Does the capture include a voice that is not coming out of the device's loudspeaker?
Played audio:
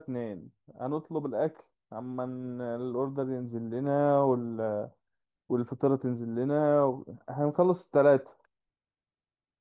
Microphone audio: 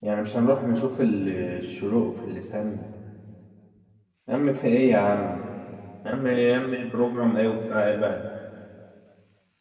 Yes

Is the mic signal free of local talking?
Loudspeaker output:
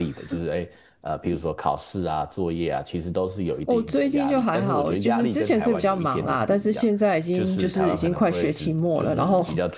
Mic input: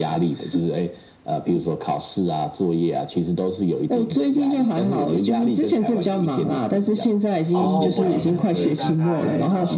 No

